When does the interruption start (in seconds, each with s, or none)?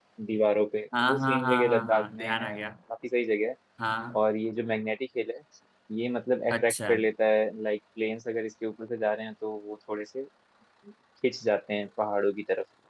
1.0 s